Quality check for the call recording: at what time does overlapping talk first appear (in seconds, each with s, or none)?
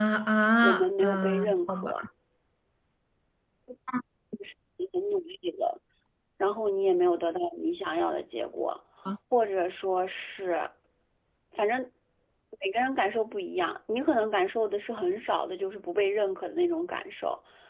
0.6 s